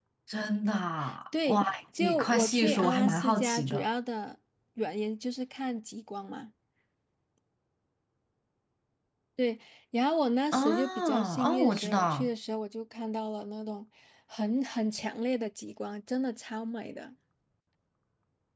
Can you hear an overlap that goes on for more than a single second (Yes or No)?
Yes